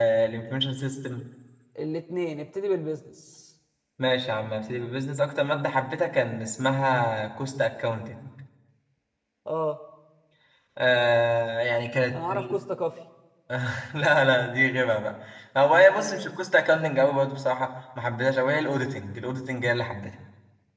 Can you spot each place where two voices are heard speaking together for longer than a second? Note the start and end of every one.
none

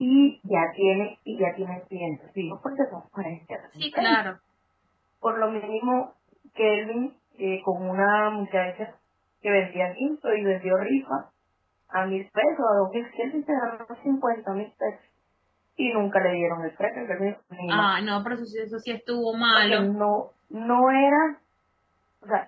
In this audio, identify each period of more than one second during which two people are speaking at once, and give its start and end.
none

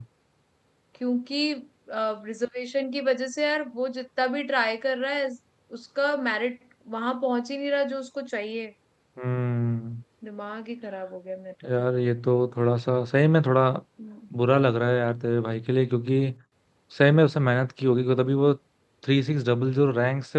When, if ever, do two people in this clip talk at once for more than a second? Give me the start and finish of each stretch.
none

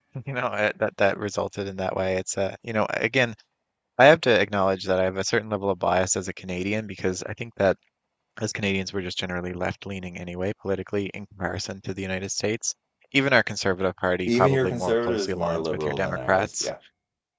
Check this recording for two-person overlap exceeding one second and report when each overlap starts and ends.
14.3-16.7

